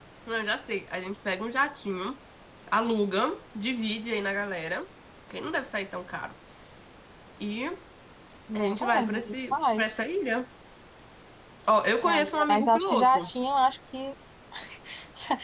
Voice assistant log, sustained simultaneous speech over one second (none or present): present